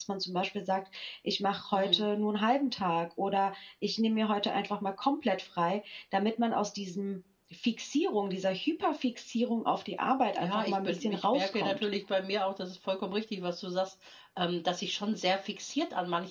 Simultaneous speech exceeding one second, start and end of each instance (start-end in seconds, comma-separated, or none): 10.4-11.8